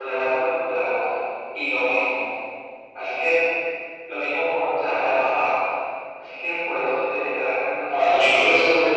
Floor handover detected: Yes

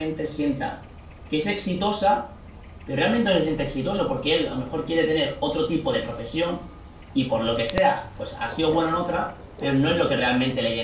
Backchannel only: Yes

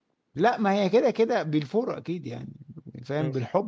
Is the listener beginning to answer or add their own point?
No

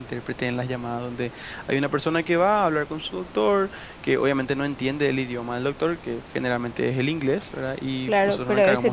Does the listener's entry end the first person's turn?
Yes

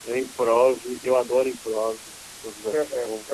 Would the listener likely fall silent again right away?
No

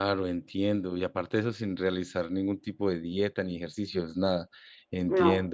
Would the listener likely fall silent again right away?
Yes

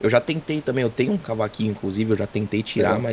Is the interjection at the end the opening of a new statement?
No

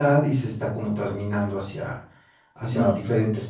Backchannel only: Yes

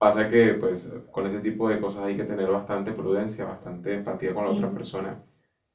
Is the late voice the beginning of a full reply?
No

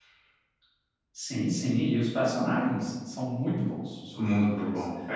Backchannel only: No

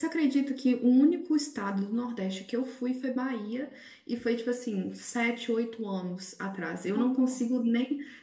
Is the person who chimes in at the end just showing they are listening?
Yes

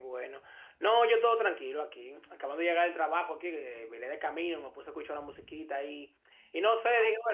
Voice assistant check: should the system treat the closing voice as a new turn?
No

